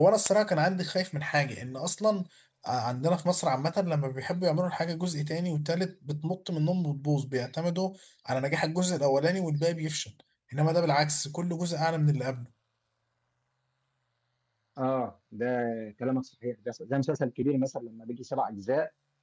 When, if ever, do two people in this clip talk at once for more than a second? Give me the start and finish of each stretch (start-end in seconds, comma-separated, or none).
none